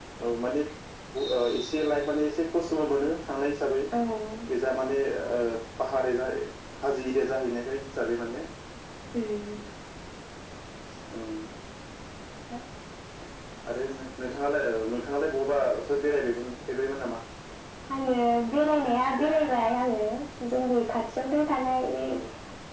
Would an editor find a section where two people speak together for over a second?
No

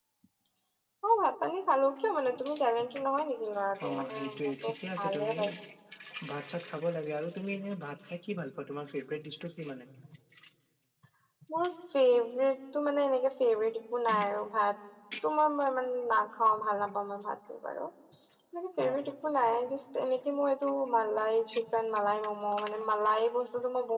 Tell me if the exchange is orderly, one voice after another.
No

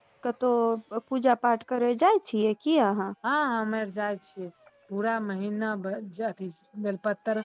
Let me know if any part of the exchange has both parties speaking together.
No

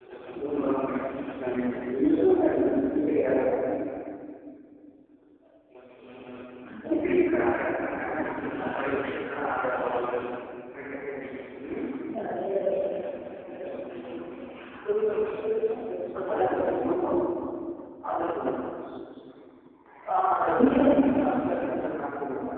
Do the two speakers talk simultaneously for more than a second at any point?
Yes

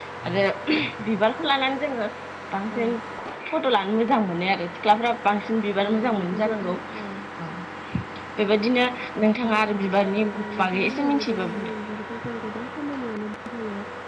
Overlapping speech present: Yes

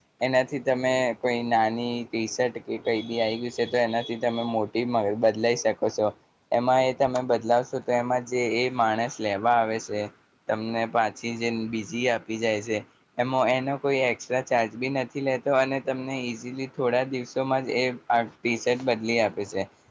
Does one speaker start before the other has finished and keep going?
No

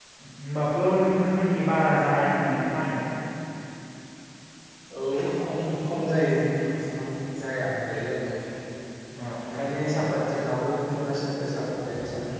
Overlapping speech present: No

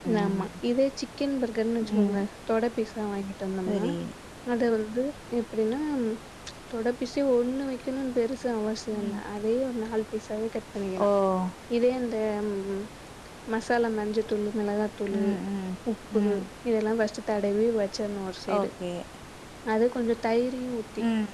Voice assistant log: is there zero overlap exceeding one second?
Yes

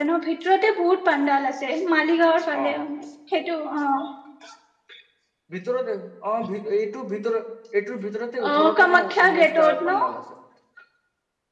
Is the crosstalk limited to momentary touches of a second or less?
No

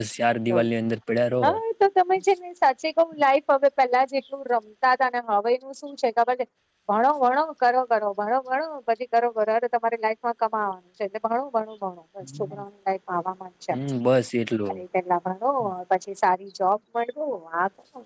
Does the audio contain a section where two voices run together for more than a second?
No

